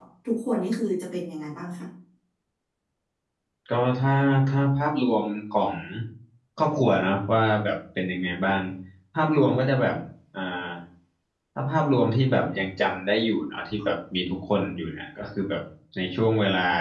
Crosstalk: none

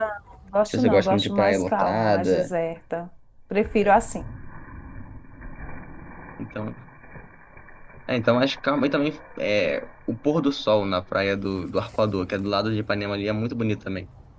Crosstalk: present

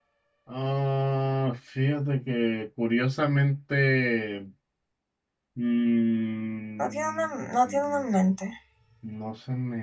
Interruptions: present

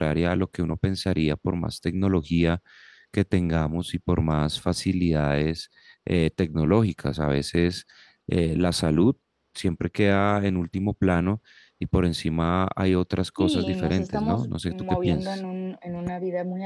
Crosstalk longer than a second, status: present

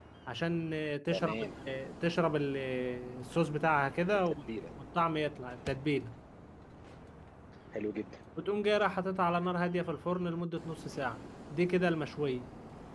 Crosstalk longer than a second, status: none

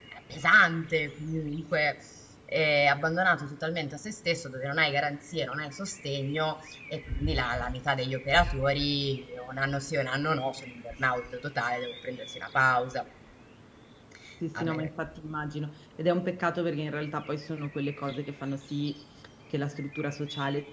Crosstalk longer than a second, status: none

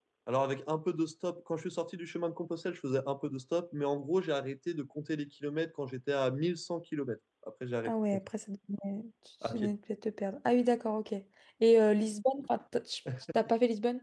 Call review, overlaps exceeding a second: none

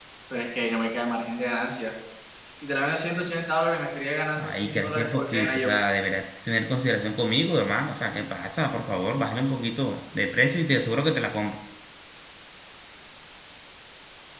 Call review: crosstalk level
present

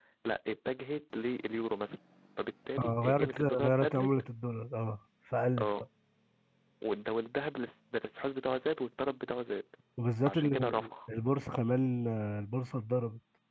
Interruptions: present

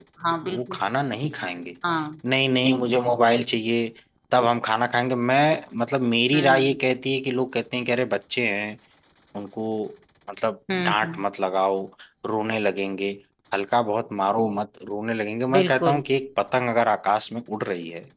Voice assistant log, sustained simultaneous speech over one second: none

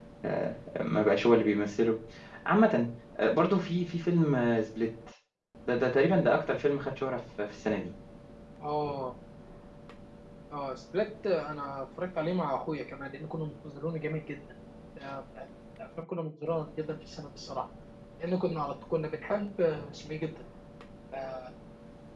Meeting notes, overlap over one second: none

